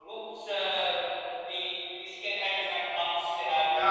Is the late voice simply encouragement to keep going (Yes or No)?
No